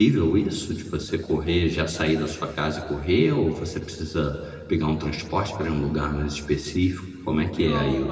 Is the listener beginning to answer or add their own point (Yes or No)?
Yes